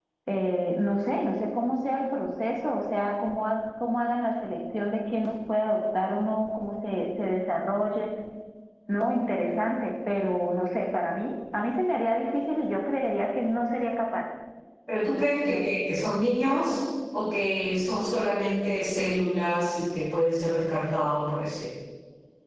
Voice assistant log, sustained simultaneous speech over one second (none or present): none